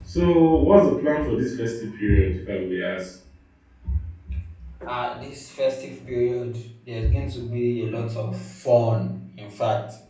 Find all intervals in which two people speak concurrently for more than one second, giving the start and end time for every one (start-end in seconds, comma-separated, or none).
none